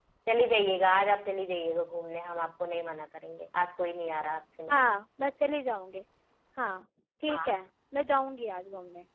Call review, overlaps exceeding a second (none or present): none